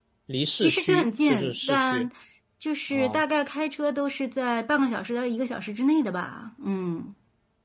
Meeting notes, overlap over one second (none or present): present